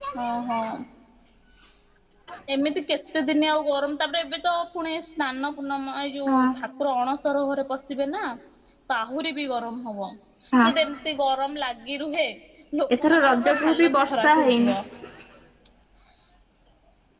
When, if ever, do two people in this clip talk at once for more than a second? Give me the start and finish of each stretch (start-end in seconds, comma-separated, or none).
13.0-14.8